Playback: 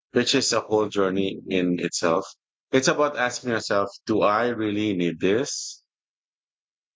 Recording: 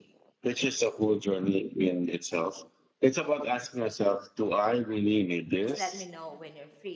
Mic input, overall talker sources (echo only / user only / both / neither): both